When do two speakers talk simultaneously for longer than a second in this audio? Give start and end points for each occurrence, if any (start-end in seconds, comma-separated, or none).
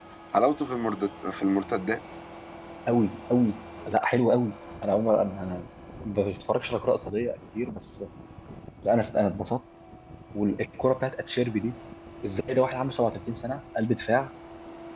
none